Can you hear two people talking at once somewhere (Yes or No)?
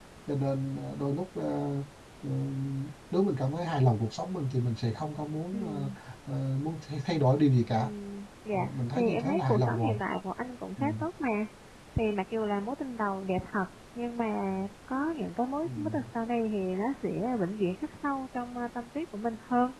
Yes